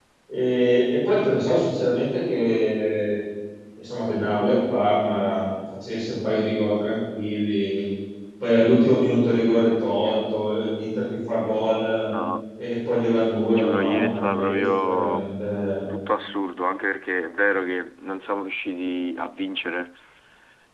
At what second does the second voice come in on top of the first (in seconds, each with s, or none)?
13.5 s